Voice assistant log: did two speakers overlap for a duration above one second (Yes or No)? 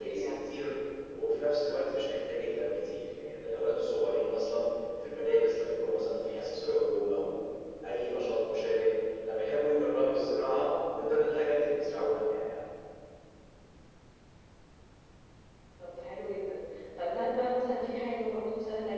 No